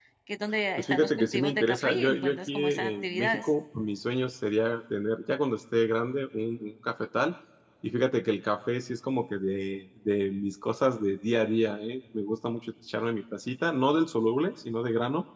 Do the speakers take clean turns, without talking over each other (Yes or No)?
No